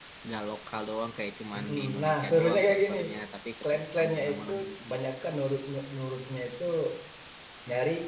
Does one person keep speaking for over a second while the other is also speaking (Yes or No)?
Yes